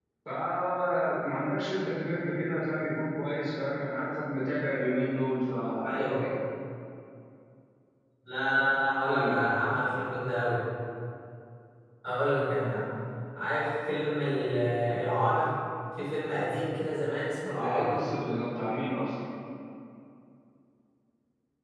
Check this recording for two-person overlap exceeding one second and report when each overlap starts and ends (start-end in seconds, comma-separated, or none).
none